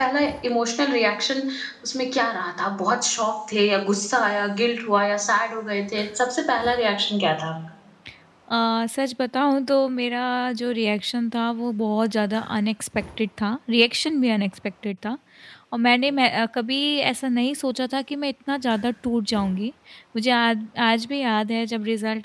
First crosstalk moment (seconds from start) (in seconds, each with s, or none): none